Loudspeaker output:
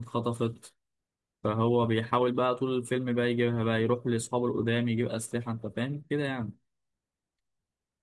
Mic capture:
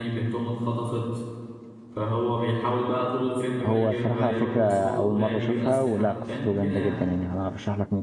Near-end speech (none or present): present